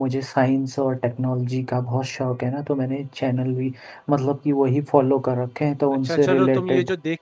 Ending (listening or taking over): taking over